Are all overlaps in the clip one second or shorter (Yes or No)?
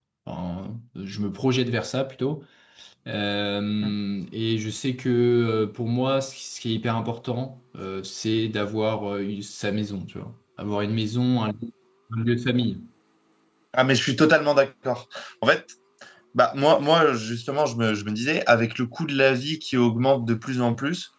Yes